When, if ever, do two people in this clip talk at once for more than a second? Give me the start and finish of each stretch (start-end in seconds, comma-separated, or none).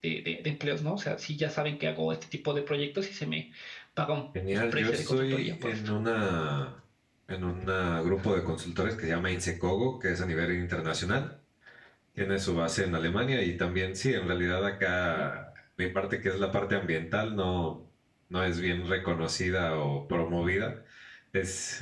4.7-5.9